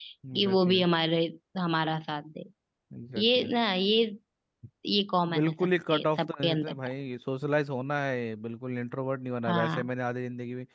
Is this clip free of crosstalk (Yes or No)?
No